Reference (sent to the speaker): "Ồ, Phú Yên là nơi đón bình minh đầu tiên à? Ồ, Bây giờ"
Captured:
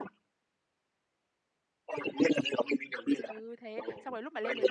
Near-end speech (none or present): present